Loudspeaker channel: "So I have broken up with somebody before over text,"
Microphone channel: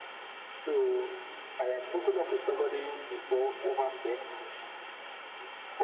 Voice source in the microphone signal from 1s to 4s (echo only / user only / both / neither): echo only